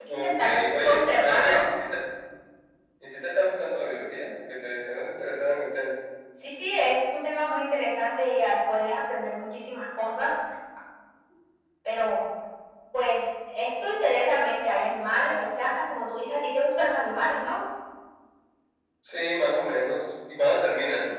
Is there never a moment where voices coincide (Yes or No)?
No